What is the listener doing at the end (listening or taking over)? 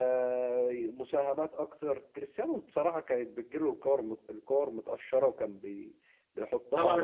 taking over